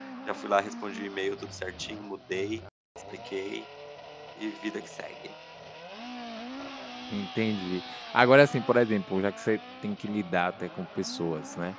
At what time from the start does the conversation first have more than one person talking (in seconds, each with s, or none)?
none